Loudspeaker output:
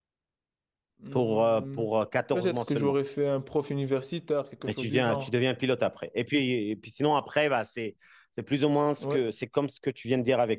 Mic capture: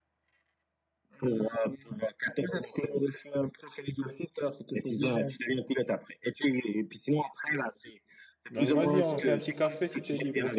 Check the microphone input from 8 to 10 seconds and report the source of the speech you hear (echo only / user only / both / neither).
both